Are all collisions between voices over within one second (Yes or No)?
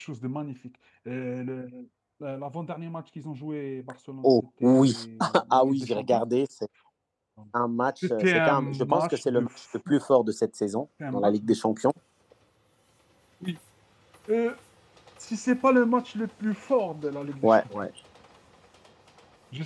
No